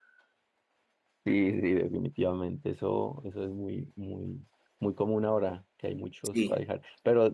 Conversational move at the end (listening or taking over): listening